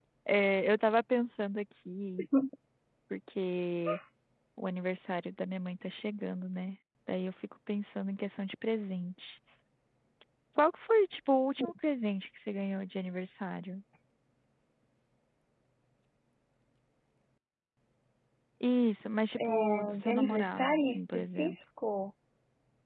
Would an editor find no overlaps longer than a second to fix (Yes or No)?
No